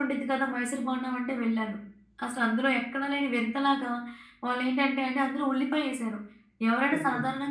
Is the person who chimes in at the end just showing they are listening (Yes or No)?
Yes